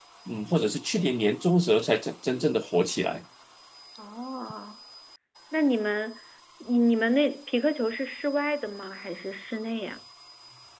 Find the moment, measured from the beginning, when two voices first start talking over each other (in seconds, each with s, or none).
none